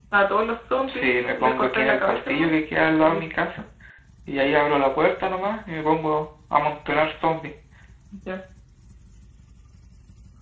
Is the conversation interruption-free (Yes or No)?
No